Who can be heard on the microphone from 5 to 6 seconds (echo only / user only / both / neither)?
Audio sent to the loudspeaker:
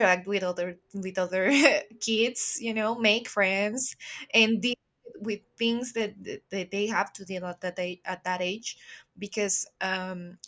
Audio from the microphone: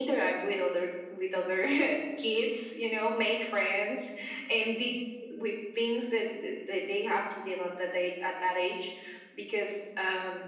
echo only